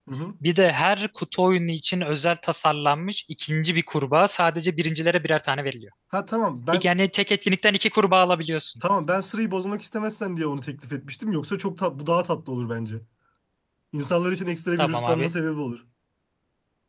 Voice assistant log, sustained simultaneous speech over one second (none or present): none